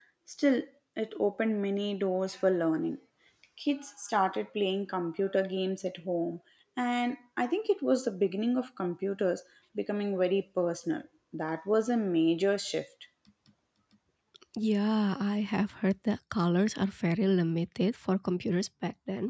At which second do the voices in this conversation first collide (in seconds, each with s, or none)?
none